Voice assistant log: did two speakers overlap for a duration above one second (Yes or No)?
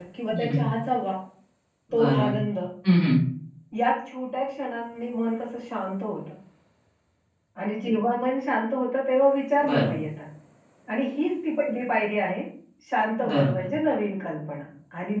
No